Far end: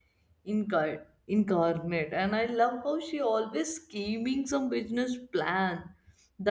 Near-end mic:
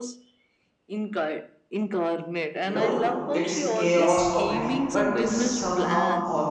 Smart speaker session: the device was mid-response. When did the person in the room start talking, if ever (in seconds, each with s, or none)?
2.6 s